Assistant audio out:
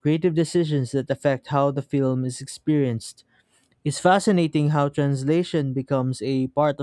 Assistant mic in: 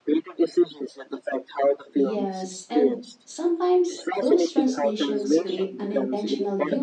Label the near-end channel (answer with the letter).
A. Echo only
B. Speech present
B